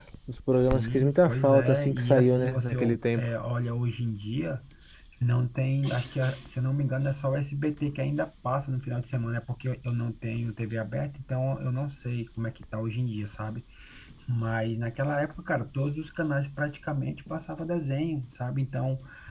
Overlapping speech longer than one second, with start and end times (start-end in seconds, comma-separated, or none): 0.5-3.3